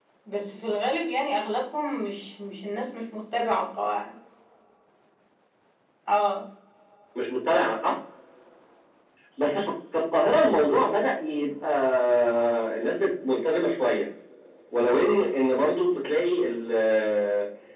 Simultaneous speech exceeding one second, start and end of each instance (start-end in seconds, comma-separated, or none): none